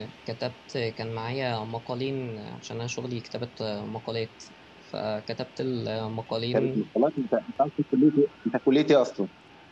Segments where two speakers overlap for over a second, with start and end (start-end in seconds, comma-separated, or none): none